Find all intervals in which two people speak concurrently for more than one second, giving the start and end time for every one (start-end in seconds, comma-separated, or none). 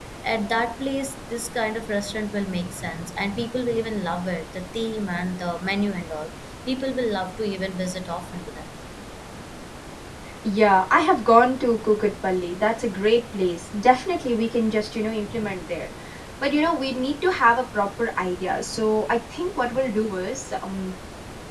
none